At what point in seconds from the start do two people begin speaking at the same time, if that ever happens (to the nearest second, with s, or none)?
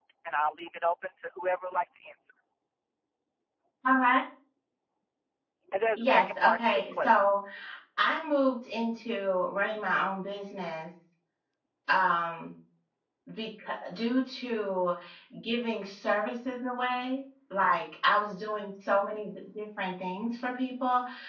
6 s